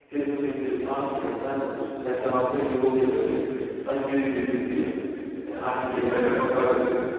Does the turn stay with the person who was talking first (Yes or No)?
No